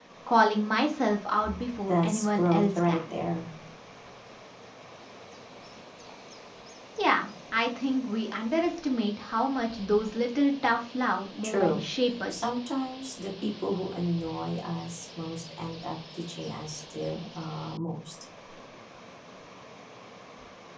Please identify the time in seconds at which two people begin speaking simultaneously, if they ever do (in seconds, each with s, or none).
1.9 s